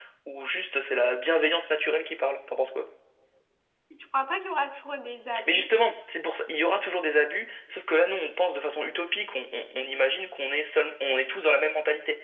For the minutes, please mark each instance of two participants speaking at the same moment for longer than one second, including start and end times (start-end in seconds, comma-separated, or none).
none